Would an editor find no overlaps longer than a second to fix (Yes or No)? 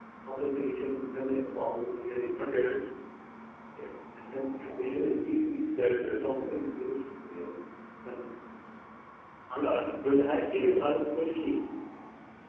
Yes